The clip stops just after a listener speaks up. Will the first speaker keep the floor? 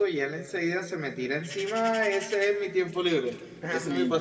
No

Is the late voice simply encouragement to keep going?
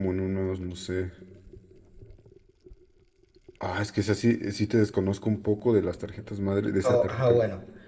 No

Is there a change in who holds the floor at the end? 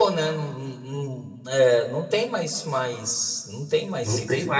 Yes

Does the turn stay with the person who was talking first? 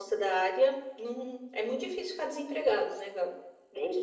No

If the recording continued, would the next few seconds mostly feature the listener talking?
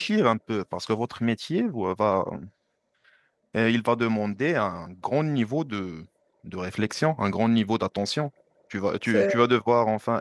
No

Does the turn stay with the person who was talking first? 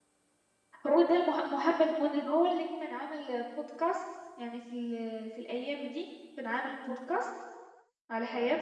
No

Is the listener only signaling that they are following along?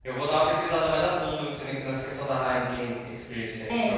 No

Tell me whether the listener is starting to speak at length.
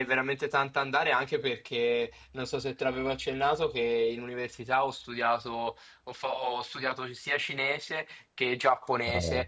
No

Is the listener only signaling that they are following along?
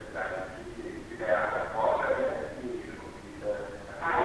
No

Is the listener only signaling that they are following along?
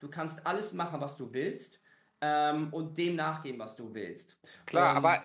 No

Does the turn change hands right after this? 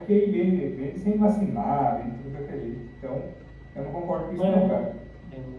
Yes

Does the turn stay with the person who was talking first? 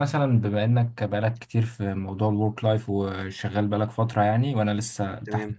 No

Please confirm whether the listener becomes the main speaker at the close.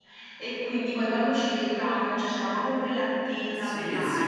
Yes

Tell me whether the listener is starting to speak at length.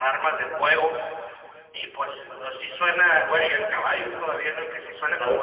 No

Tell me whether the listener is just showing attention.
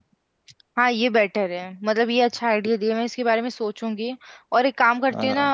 Yes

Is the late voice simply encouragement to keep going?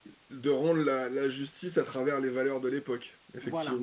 No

